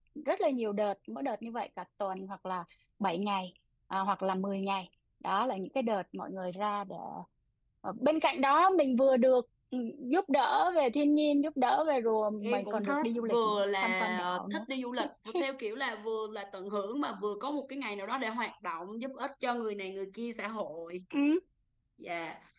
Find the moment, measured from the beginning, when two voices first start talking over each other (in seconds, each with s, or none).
12.4 s